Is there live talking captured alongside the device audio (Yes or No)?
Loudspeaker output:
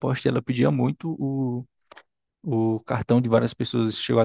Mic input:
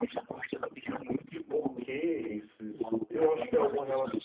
Yes